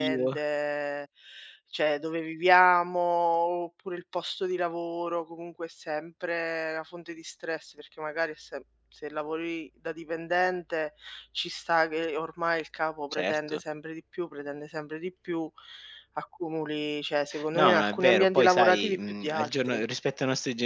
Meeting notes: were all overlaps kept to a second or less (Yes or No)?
No